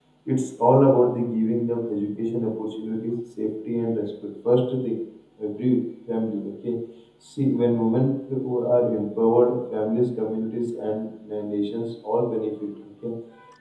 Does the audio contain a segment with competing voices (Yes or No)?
No